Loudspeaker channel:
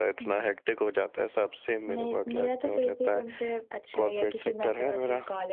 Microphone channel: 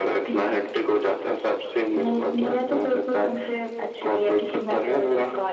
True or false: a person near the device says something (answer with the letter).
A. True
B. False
B